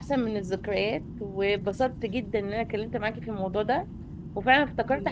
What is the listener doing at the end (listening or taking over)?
listening